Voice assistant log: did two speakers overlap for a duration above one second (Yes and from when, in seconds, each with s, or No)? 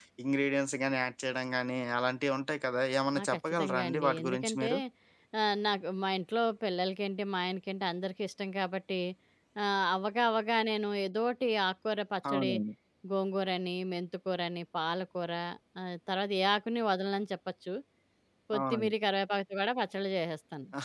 Yes, from 3.2 s